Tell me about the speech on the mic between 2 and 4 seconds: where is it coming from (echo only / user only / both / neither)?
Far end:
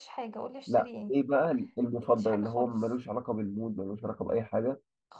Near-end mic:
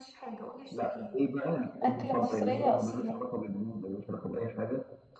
both